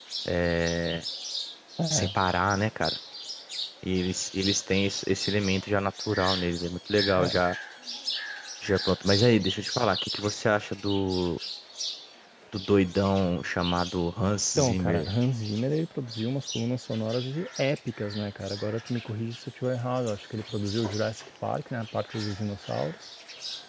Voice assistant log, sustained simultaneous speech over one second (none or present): none